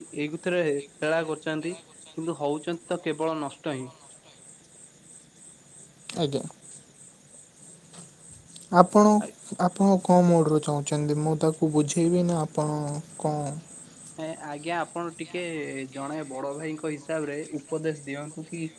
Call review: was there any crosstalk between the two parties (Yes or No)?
No